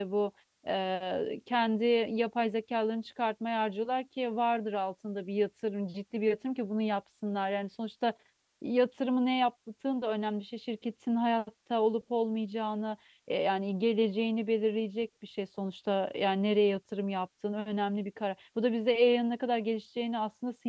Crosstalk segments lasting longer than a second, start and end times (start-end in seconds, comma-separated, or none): none